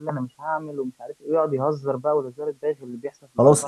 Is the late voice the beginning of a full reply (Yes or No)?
Yes